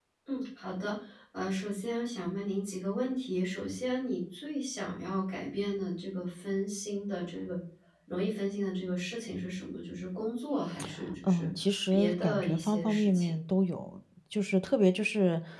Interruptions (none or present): present